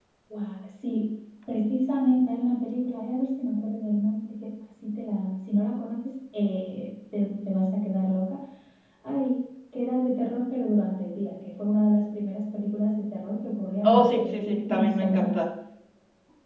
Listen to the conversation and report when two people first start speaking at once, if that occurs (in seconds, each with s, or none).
13.8 s